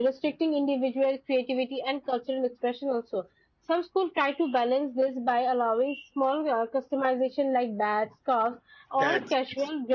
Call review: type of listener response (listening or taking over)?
listening